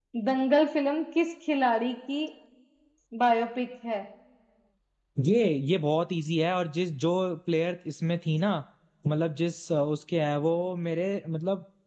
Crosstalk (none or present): none